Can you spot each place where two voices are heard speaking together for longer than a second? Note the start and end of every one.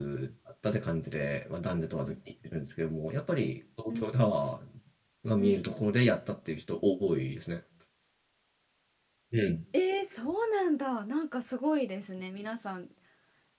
none

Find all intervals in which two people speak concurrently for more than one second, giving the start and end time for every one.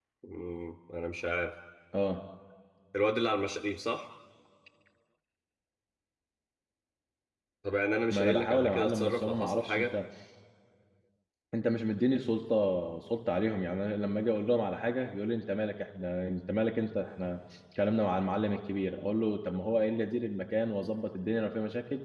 8.1-9.9

